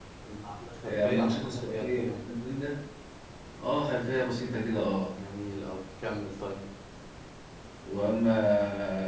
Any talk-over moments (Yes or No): Yes